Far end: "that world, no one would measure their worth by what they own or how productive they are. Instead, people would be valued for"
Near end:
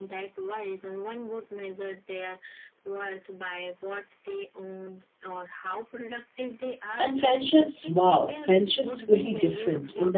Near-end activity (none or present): present